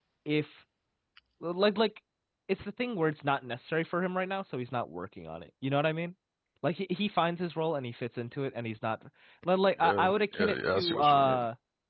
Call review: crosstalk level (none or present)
present